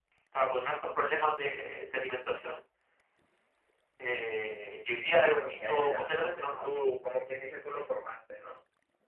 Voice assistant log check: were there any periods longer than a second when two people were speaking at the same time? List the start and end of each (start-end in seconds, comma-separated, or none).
5.2-6.7